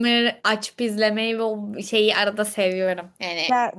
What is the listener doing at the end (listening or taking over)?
listening